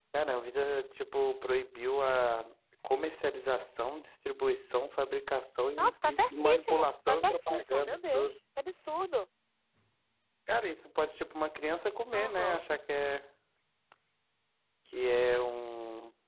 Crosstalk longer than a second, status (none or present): present